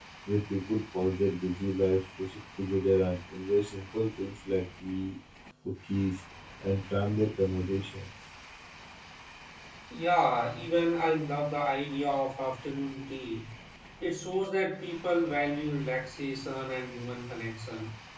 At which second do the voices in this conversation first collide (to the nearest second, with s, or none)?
none